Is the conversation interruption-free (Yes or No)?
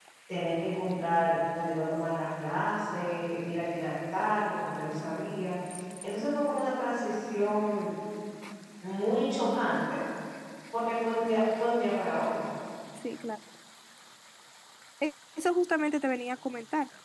Yes